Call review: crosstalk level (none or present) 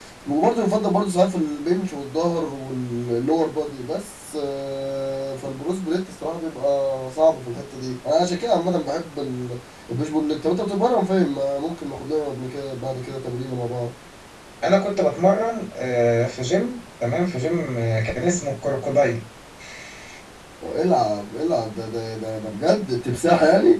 none